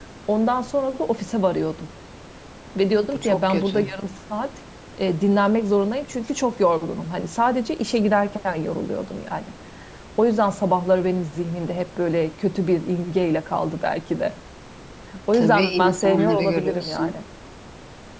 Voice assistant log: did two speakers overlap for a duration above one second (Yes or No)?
Yes